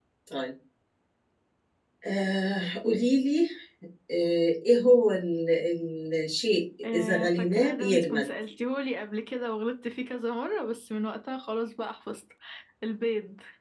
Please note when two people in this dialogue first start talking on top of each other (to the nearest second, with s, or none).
7 s